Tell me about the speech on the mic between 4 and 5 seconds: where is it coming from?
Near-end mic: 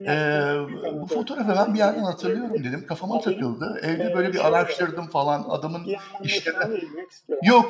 both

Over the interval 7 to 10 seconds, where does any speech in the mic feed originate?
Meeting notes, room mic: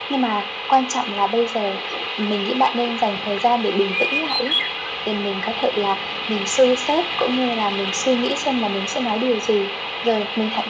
echo only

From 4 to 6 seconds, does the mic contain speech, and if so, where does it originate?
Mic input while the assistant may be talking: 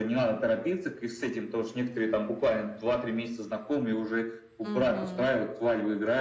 both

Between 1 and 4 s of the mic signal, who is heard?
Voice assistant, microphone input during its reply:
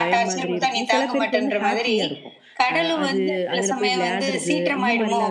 both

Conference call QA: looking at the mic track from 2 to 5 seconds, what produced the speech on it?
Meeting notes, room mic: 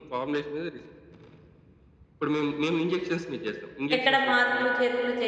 both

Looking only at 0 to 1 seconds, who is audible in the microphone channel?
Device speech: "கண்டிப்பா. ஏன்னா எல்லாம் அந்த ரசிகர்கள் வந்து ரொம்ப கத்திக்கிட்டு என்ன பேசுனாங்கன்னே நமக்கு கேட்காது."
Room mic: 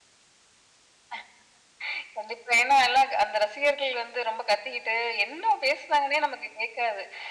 neither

